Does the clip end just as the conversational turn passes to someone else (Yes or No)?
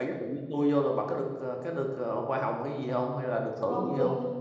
Yes